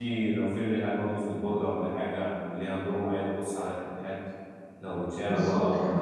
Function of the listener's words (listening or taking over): taking over